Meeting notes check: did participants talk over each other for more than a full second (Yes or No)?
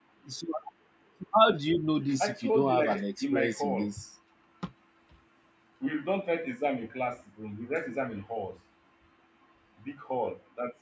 Yes